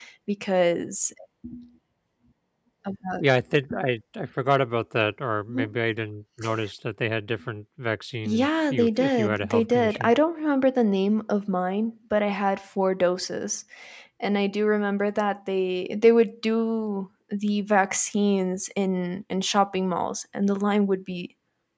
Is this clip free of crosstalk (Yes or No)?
No